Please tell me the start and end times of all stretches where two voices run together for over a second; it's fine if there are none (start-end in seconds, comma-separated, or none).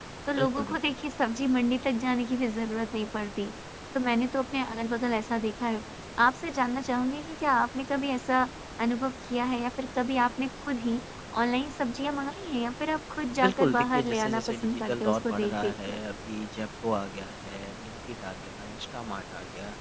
13.4-16.0